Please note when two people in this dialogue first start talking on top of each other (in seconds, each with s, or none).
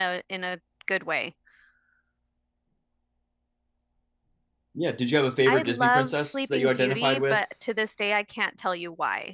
5.5 s